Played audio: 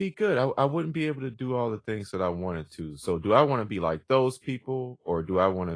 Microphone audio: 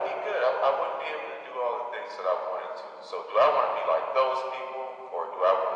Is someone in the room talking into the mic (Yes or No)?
No